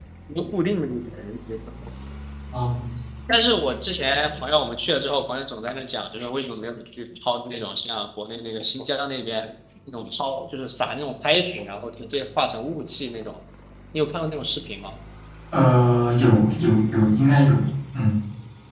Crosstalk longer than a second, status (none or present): none